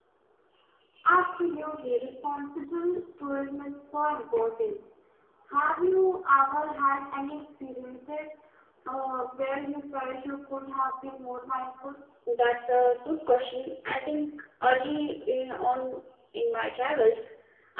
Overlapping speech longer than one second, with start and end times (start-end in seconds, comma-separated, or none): none